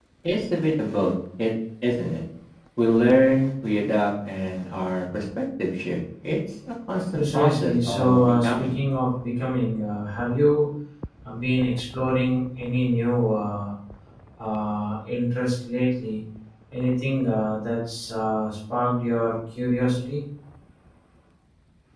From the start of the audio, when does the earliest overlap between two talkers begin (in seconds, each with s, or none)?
7.1 s